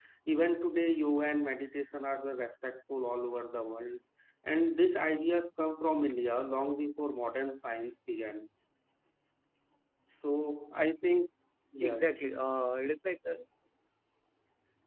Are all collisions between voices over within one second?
Yes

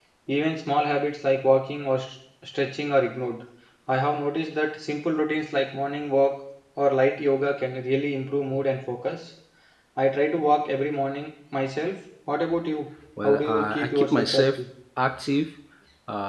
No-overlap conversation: No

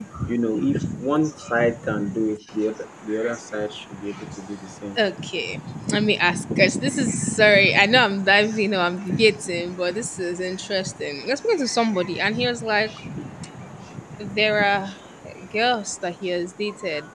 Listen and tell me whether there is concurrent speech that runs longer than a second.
No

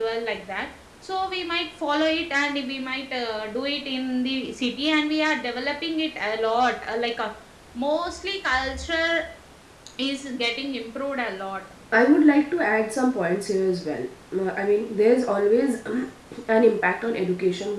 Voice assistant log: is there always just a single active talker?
Yes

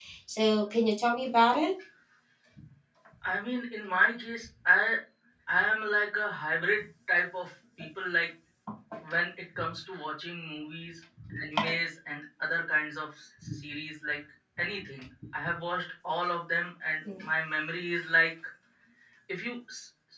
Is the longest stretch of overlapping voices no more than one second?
Yes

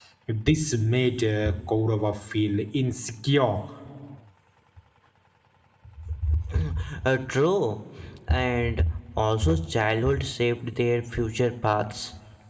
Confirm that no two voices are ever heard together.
Yes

